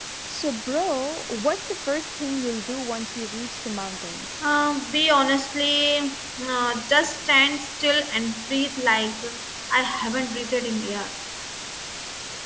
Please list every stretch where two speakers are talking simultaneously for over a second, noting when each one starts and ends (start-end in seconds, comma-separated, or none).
none